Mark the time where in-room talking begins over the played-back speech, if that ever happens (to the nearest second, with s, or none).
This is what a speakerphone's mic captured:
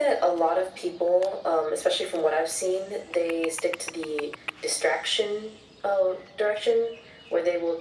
none